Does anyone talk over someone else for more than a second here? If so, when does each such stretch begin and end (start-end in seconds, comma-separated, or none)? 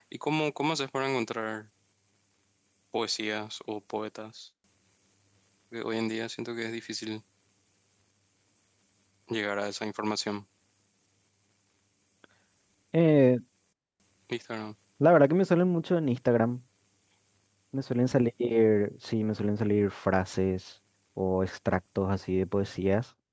none